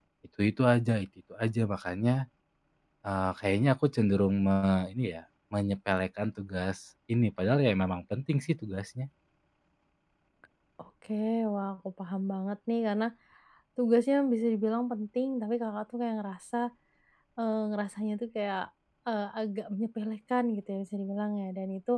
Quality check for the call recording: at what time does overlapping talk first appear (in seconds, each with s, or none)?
none